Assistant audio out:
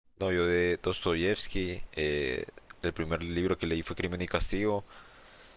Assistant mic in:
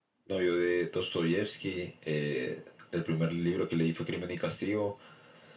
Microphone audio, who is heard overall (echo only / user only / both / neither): echo only